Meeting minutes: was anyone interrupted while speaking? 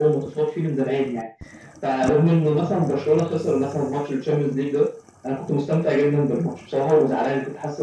No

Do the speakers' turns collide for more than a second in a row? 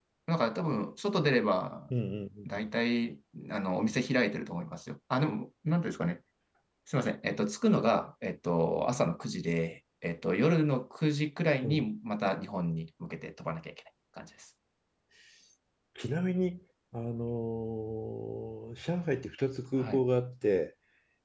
No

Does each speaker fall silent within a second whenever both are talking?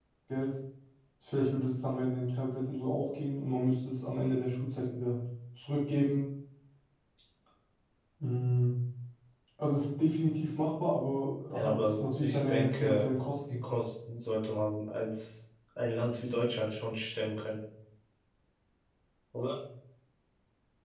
No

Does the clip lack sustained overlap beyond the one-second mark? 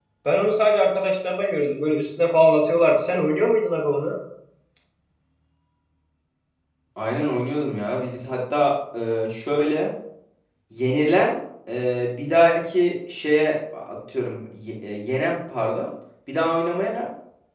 Yes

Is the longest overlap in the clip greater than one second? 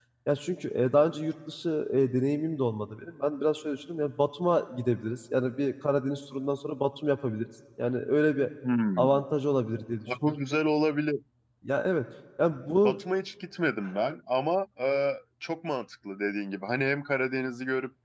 No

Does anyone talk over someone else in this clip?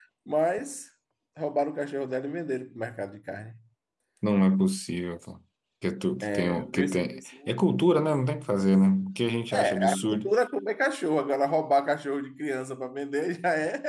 Yes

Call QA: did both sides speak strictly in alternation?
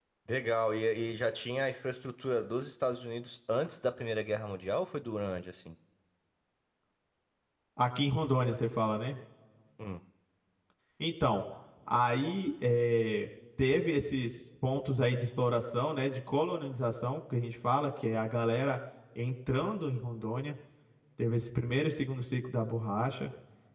Yes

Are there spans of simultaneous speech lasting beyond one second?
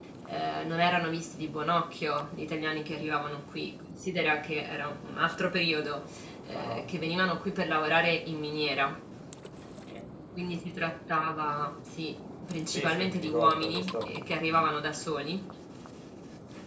Yes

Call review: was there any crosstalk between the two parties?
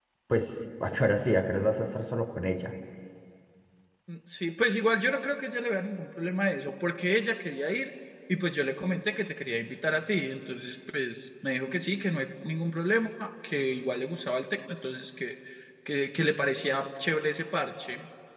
No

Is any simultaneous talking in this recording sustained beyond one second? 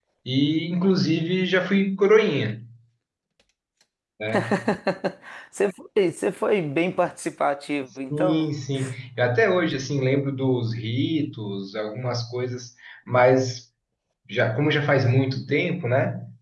No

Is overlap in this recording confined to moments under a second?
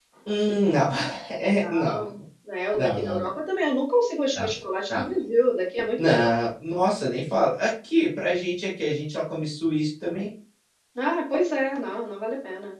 Yes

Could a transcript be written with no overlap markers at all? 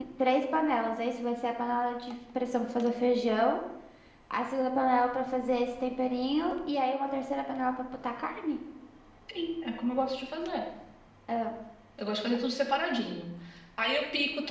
Yes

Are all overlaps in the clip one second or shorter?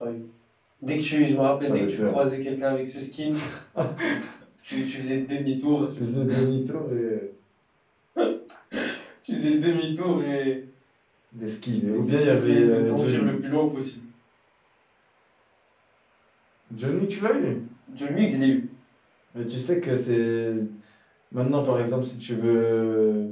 No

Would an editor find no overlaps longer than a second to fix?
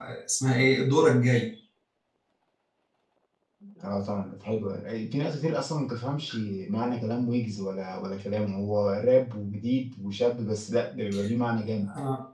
Yes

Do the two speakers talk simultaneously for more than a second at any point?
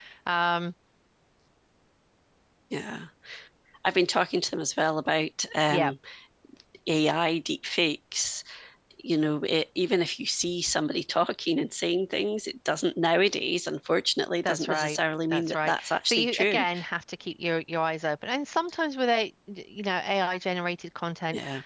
Yes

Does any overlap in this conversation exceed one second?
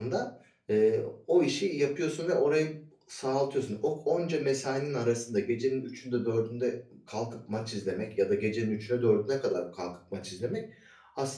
No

